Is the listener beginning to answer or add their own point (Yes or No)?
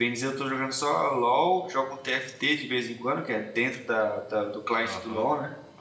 Yes